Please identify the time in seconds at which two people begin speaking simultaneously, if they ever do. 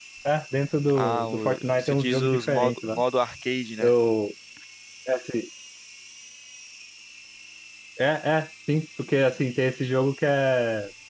0.9 s

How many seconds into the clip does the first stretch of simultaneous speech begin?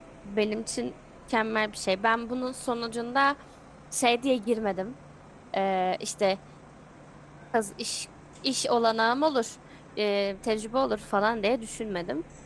none

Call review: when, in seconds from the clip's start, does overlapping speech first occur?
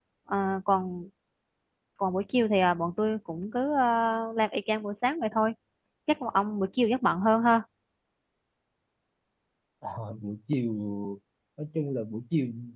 none

